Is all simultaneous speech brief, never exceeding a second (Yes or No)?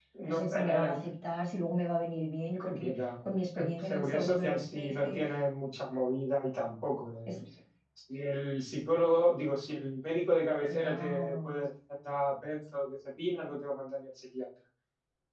No